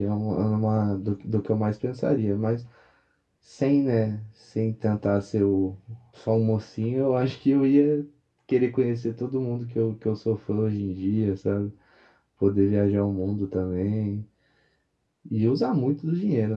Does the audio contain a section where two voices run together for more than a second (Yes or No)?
No